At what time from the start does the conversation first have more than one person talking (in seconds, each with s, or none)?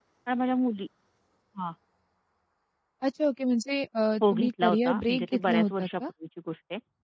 4.2 s